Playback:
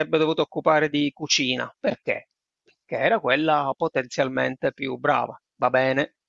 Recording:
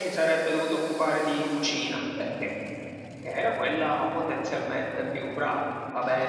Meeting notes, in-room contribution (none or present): none